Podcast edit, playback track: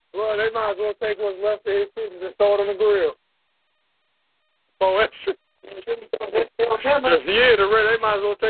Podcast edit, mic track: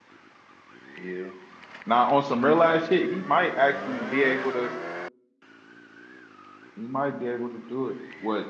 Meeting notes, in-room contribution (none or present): present